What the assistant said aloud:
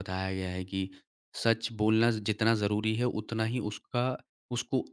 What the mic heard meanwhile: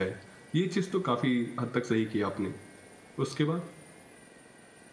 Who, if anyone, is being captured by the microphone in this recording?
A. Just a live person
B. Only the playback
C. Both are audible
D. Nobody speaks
A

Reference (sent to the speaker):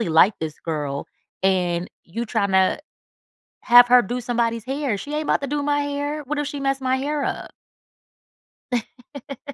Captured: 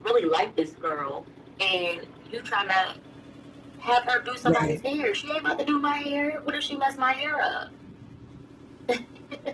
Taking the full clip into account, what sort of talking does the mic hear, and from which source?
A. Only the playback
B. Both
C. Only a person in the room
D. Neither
B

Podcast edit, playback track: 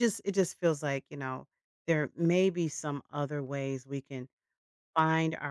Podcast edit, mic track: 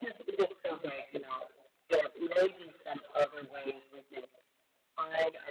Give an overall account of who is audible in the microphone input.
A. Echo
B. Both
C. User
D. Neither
A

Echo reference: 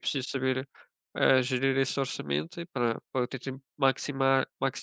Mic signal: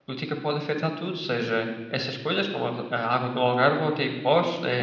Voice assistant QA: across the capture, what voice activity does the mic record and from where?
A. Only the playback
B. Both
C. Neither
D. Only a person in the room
D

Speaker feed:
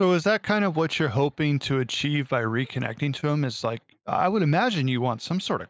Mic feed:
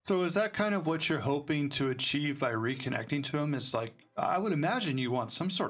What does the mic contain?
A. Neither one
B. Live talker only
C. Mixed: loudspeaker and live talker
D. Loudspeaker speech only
D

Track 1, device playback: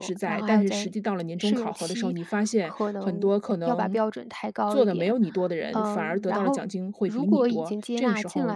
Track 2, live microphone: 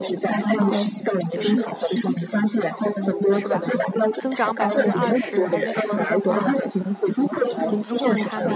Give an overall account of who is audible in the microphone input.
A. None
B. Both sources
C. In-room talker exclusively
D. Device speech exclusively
B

